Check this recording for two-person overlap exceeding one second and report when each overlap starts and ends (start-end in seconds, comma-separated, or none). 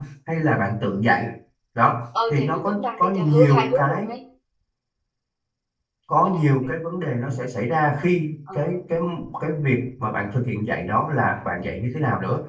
2.3-4.1